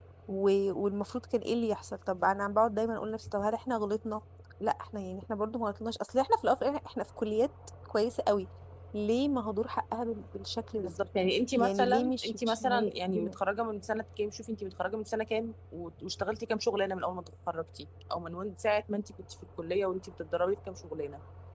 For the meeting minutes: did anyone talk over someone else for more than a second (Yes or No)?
Yes